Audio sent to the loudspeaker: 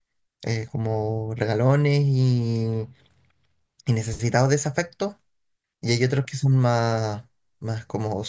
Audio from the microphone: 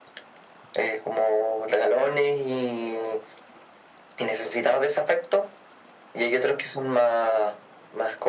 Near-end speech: none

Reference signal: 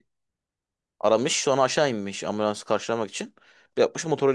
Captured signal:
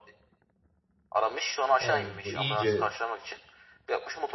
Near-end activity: present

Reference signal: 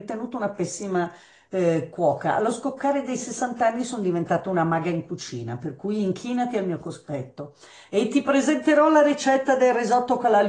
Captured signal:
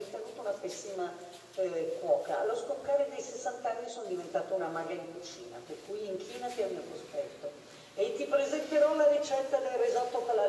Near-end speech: none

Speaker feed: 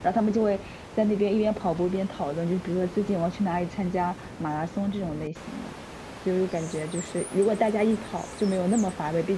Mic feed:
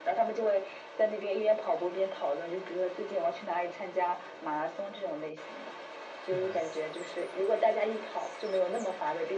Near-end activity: present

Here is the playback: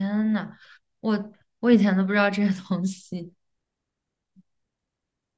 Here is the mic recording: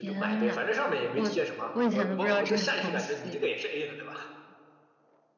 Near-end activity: present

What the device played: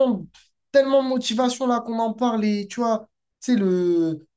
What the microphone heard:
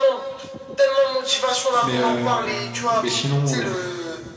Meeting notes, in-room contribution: present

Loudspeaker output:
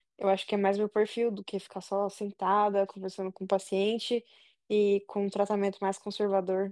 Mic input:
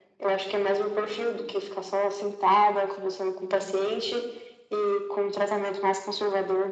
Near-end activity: none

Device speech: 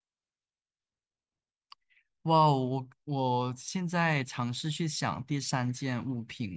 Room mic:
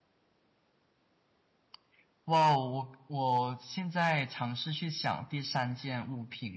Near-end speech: none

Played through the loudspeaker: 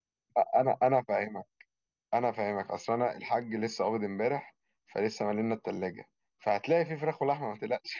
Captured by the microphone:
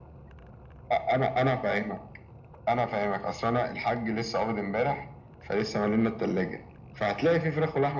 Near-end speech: none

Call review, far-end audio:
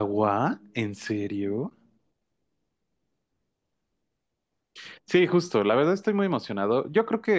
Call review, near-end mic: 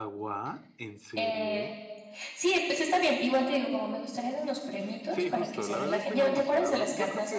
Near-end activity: present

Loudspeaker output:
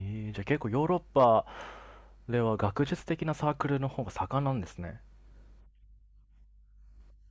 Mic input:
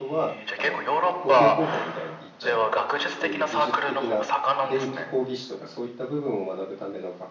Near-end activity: present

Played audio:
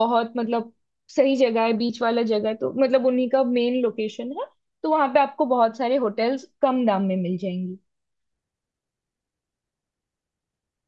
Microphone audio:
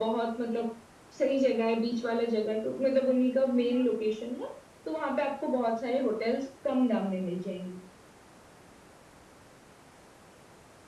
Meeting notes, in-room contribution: present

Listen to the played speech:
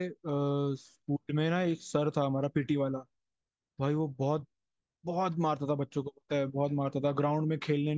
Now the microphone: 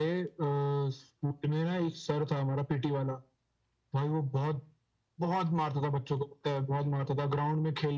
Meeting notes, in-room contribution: none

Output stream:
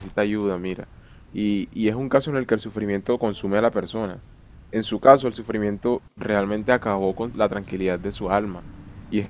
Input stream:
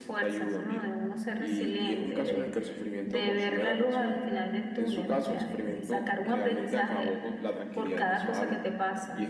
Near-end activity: present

